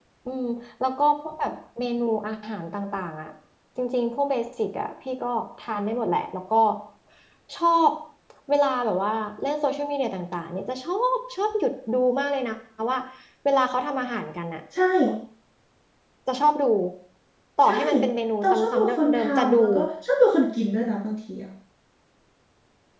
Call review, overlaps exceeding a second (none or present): present